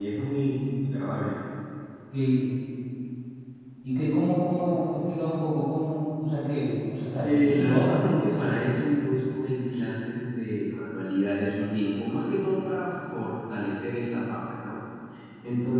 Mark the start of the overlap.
7 s

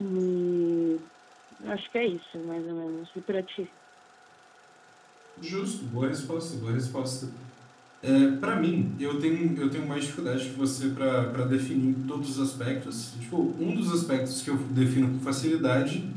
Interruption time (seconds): none

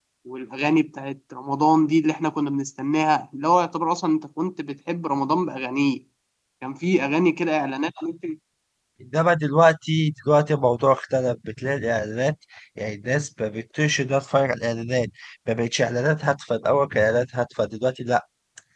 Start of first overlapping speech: none

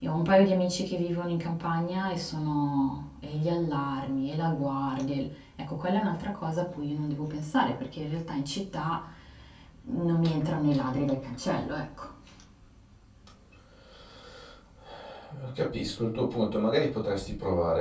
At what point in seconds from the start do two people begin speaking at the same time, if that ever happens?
none

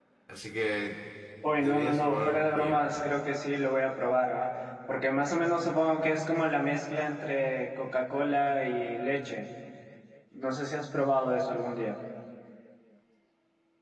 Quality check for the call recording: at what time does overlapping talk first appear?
2 s

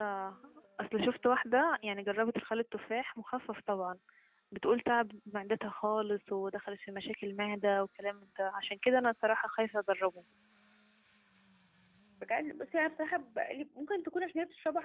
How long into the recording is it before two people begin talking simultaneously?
none

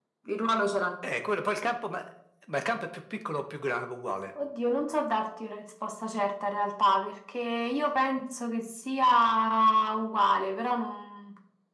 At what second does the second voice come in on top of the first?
none

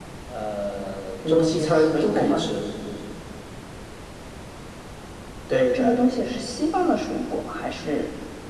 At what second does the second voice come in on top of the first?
1 s

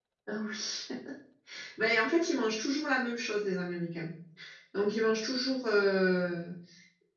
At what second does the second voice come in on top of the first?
none

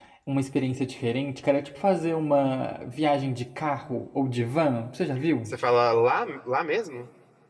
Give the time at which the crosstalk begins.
none

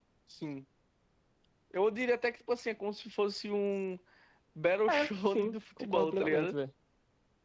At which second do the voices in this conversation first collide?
5 s

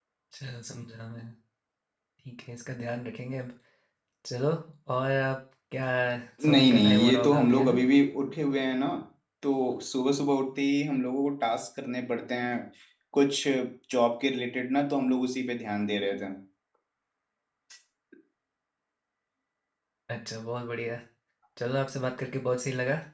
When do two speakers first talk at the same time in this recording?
6 s

